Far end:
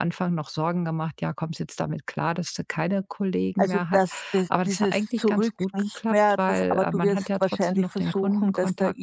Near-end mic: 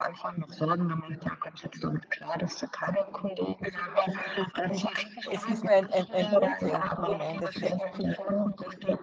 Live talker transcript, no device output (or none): es ist nur ein ein ein Umdenken im Endeffekt.